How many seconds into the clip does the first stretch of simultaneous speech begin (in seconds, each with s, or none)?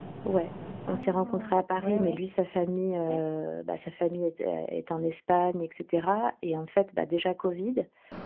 0.9 s